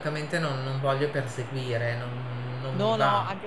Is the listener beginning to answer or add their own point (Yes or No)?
Yes